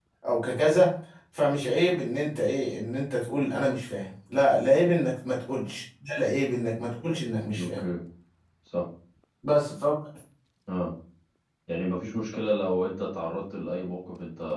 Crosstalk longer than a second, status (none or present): none